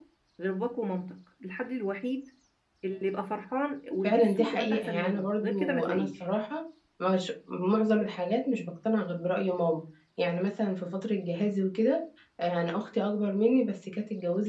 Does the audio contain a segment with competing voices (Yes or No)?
Yes